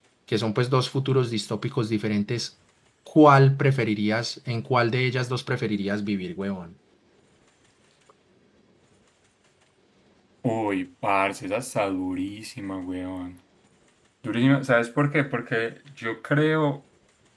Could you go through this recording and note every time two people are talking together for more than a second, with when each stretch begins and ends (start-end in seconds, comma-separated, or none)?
none